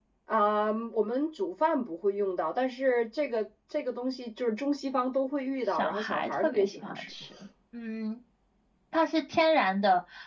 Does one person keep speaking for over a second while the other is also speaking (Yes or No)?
Yes